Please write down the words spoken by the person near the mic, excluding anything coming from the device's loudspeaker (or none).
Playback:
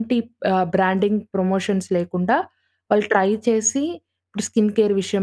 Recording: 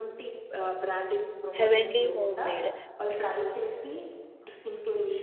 'హెవెన్లీ హోమ్ మేడ్'